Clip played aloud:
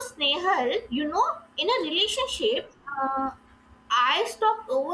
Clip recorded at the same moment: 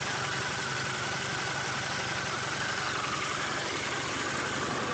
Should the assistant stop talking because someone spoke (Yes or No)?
No